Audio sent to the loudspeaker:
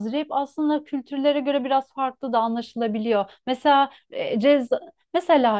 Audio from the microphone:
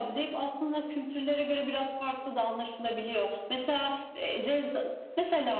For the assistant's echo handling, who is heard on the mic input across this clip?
echo only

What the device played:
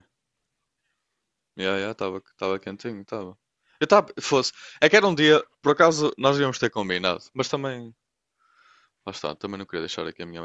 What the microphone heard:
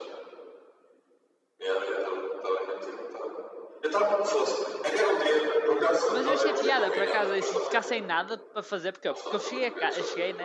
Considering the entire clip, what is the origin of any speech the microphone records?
both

